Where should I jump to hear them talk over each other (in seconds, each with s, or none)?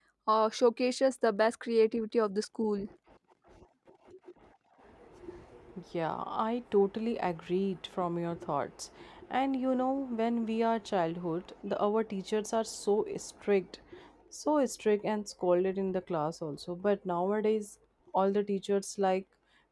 none